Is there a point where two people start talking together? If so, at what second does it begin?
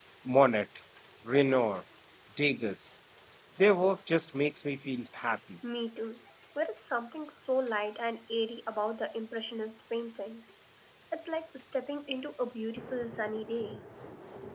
none

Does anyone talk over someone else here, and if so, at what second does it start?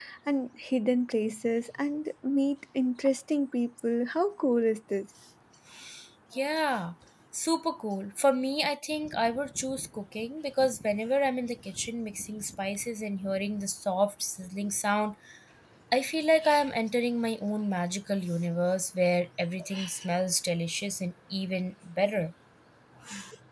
none

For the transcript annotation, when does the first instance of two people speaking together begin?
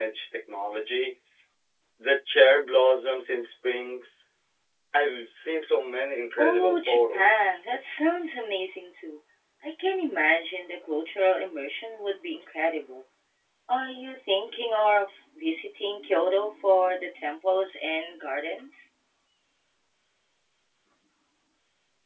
6.4 s

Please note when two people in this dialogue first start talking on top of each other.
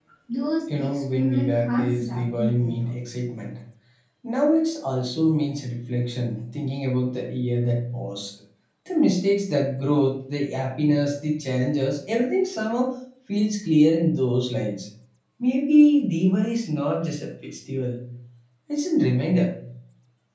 0.8 s

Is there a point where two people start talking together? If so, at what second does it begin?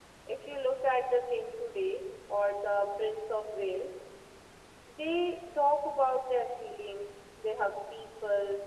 none

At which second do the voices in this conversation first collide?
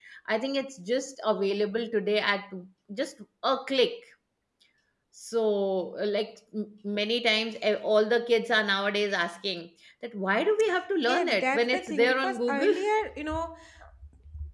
11.1 s

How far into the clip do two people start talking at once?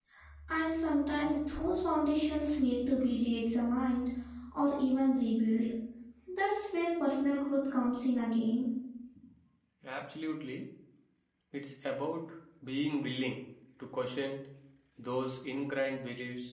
none

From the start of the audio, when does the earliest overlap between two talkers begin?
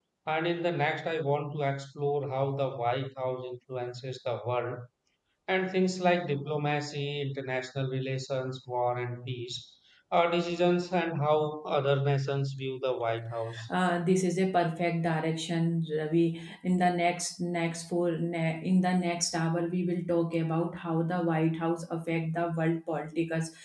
none

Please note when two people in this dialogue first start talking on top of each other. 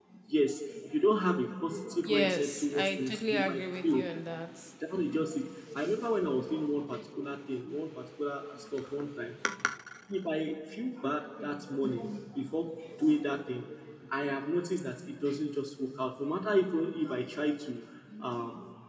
2.1 s

